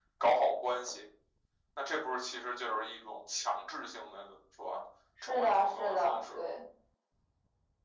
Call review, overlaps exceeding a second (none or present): present